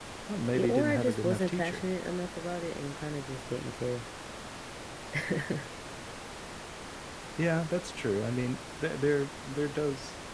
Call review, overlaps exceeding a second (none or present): present